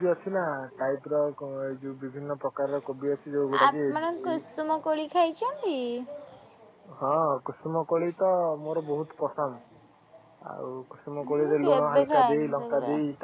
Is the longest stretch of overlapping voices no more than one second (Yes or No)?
No